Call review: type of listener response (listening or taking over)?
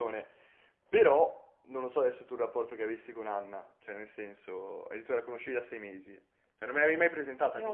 listening